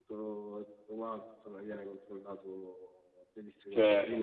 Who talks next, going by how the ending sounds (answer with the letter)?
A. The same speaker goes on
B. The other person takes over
B